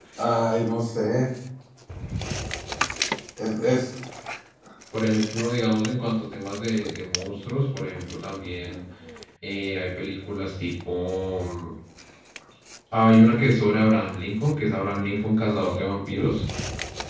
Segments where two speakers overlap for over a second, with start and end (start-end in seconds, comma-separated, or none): none